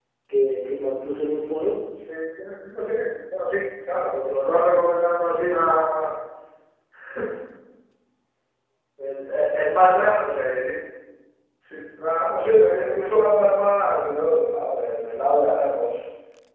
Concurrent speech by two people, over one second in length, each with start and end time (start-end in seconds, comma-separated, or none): none